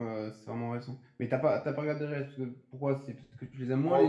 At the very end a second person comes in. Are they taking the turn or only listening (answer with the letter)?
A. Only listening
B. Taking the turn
B